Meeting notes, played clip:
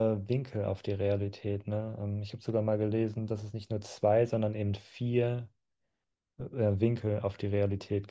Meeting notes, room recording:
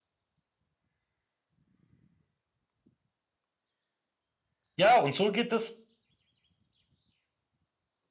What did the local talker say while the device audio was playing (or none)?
Ja, und so geht es